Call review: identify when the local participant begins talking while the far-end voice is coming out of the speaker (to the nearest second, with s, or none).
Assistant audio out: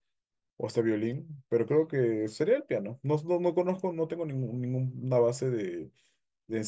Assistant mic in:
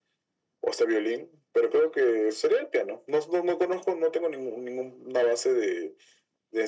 none